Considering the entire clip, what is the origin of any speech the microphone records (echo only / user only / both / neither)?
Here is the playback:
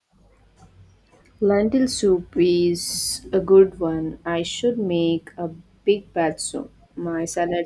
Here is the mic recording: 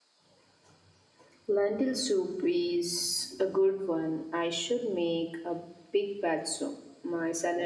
echo only